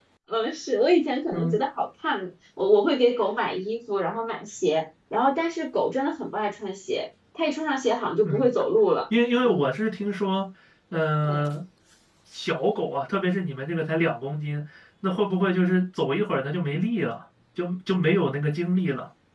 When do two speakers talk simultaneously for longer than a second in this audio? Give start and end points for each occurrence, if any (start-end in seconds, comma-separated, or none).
none